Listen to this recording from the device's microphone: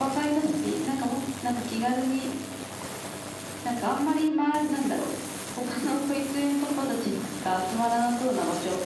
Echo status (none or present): present